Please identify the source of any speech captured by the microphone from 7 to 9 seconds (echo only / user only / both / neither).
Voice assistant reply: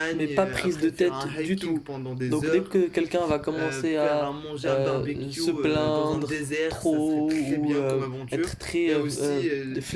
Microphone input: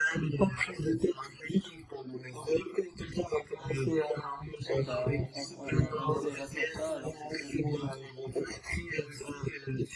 both